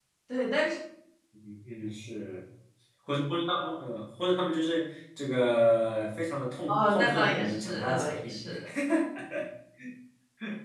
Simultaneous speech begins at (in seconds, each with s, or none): 6.7 s